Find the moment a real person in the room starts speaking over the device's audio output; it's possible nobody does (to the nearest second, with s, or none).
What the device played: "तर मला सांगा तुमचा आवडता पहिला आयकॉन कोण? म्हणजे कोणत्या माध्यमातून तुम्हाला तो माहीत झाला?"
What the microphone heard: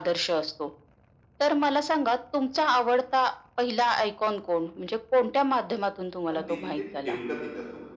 6 s